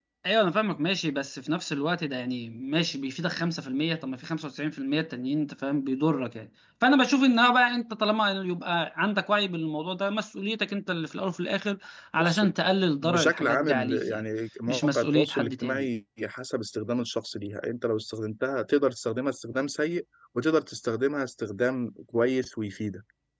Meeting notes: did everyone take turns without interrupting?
No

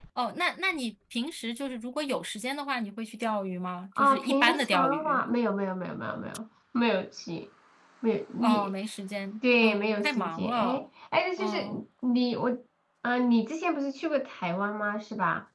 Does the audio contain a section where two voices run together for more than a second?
Yes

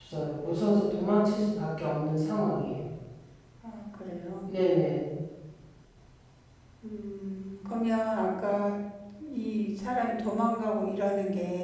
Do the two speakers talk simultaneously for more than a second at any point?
No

